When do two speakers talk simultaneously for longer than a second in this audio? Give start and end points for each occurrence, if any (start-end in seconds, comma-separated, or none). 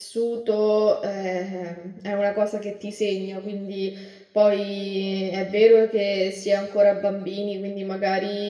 none